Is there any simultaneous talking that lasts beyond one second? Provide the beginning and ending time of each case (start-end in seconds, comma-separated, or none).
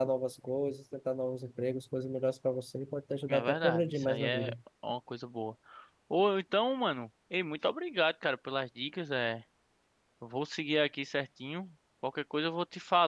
3.3-4.5